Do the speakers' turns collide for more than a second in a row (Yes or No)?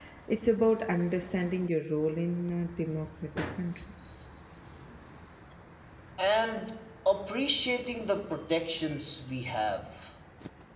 No